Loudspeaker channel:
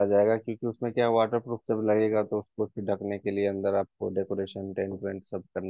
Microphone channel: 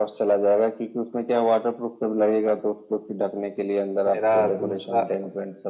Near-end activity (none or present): present